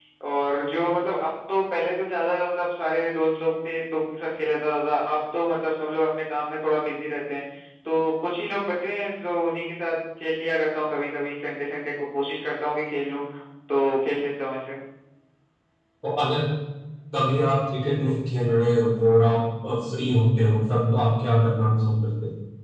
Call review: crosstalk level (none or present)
none